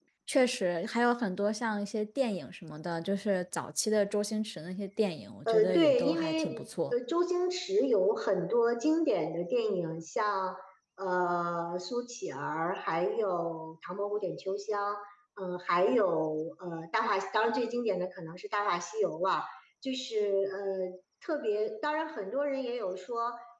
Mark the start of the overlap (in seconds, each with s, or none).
5.5 s